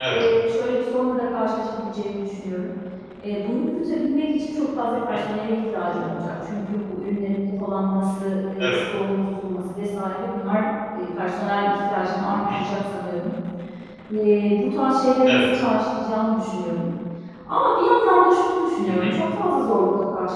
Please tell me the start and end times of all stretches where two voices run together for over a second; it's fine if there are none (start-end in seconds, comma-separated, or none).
none